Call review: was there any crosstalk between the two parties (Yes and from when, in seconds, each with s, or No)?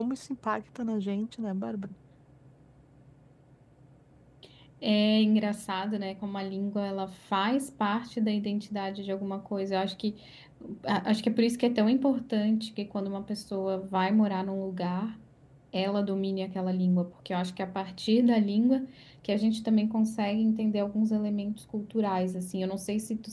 No